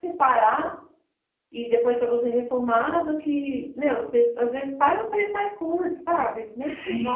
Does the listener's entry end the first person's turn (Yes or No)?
No